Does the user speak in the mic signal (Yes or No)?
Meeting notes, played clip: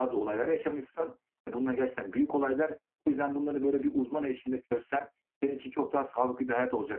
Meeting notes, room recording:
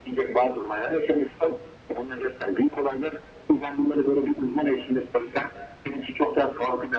No